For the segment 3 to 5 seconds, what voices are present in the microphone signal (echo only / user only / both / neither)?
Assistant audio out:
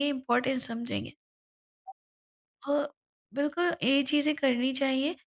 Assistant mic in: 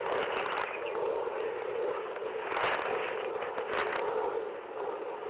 neither